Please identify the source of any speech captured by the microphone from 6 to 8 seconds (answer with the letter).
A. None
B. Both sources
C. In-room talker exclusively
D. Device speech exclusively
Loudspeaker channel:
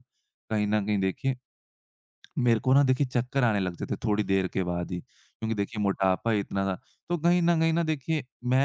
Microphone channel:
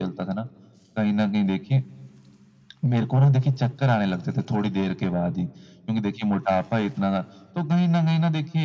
D